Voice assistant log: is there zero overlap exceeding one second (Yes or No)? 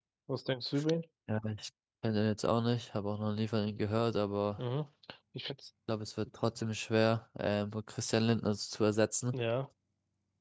Yes